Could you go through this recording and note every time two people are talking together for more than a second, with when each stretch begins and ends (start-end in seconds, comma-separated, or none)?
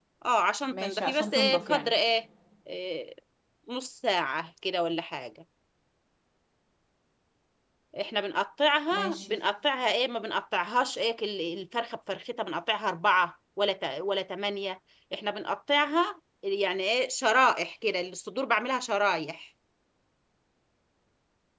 0.7-1.9